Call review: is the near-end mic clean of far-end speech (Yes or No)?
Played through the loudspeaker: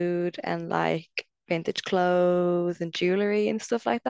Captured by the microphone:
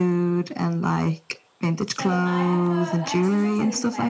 No